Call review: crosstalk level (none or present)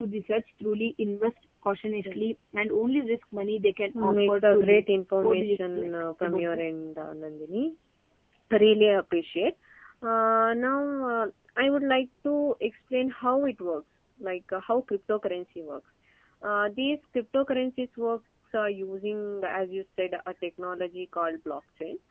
present